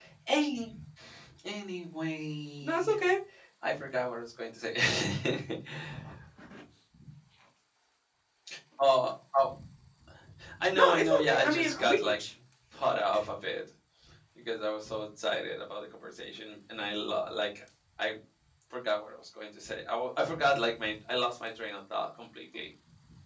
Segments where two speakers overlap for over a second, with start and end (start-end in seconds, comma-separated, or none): 10.7-12.0